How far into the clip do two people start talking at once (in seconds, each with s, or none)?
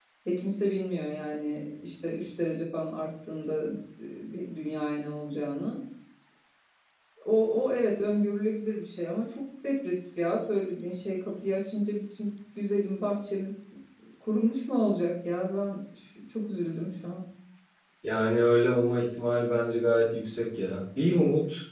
none